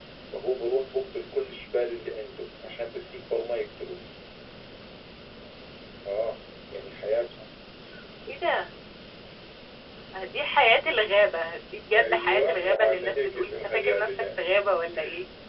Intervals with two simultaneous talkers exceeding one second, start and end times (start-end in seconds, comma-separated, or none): 12.0-14.4